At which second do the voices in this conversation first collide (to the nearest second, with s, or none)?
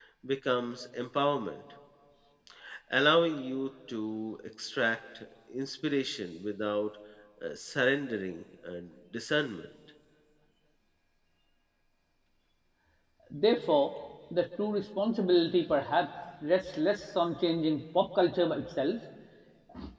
none